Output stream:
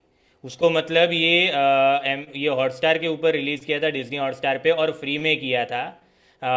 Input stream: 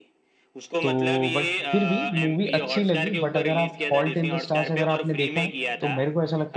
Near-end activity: present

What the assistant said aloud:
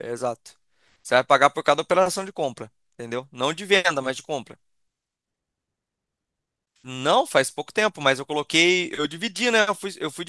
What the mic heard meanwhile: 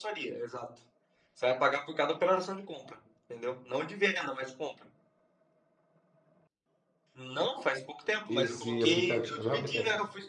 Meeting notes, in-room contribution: present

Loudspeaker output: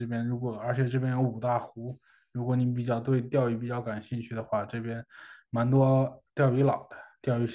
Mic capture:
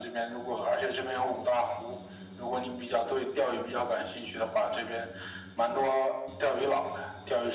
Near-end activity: none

